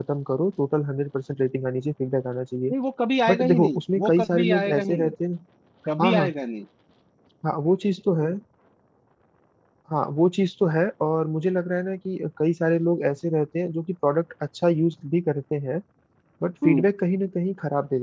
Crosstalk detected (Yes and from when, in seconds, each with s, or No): Yes, from 3.3 s